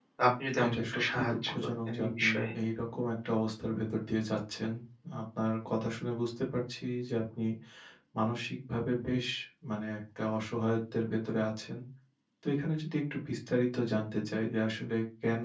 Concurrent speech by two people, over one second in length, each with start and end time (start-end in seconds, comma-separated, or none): 0.6-2.3